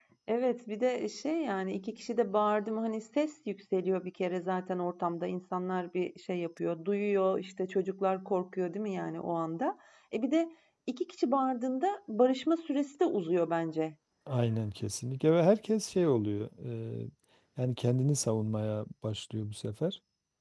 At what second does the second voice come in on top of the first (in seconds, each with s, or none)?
none